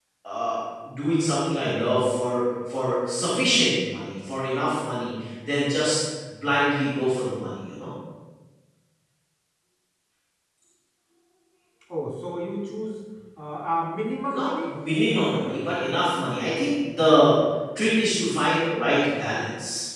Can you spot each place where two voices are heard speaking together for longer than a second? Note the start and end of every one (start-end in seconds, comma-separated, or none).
14.3-16.1